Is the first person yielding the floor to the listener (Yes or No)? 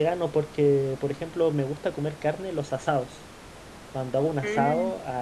No